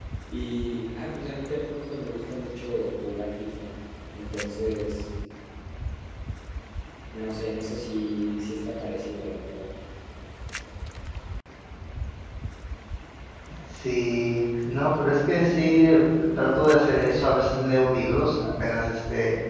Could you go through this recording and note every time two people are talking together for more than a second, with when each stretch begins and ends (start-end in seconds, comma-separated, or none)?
none